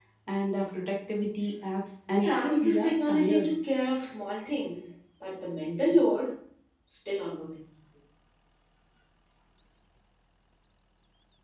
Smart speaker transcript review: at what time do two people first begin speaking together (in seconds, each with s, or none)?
2.2 s